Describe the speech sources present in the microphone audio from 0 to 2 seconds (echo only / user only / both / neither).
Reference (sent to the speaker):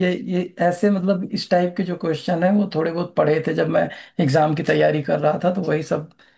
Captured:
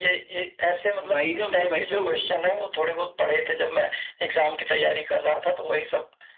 both